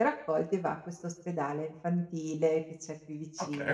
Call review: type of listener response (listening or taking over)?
taking over